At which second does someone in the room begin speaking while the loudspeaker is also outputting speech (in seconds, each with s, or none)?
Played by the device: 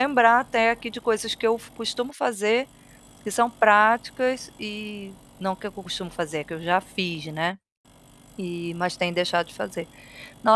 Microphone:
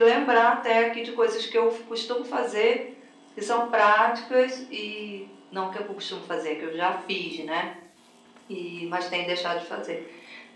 none